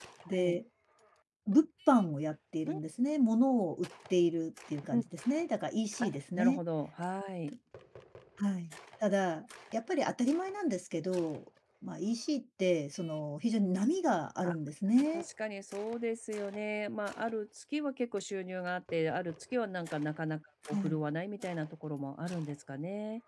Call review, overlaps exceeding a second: none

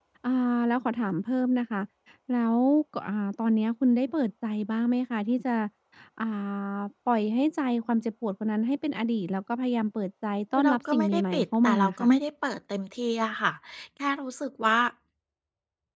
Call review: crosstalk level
present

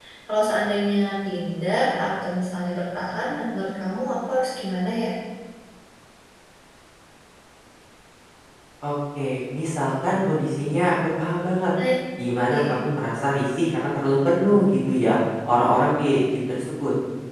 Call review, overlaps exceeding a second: none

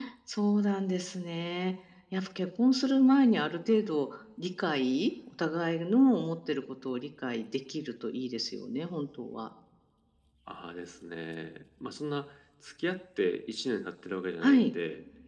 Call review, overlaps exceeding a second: none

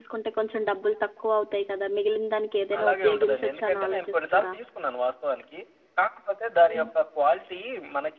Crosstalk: present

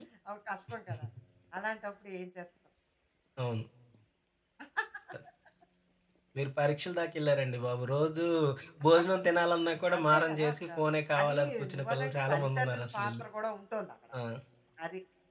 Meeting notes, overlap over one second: present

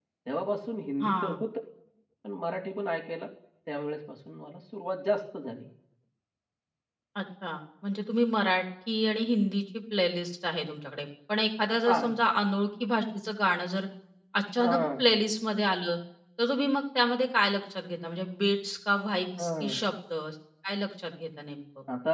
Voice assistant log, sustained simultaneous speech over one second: none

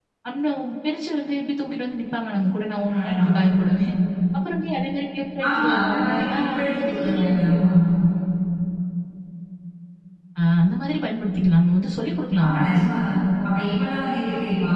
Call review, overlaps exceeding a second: present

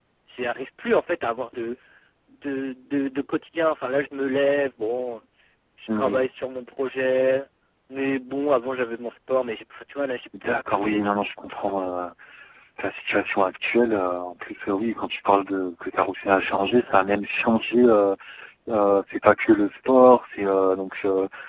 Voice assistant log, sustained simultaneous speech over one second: present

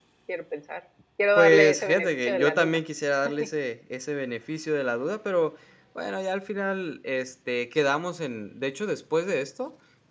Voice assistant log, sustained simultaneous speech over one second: present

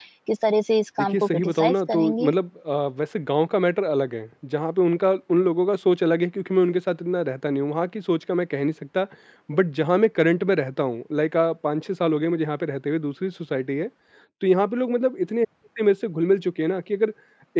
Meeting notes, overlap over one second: present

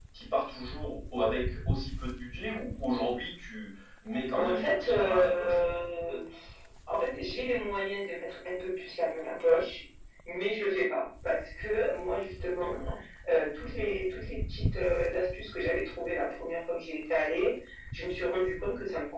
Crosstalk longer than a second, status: present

